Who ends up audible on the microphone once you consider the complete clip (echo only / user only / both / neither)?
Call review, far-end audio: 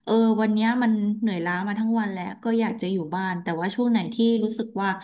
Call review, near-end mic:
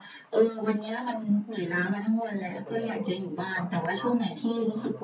both